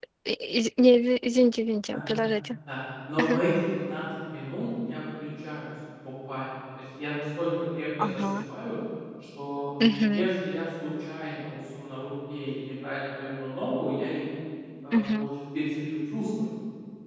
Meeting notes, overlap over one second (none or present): none